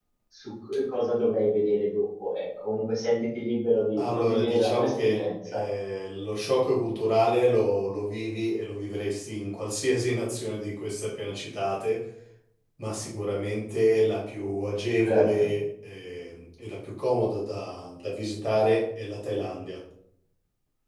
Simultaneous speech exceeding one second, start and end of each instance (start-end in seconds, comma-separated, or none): 4.0-5.6